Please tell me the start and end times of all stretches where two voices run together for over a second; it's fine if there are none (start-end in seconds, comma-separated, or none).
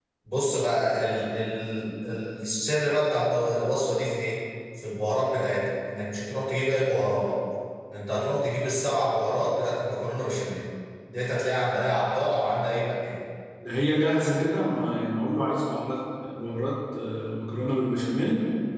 none